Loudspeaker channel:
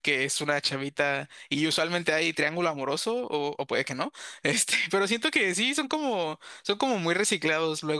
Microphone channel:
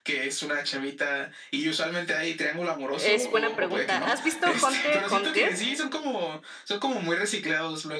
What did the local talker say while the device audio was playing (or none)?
es buena pregunta. ¿Has visto Hunter x Hunter?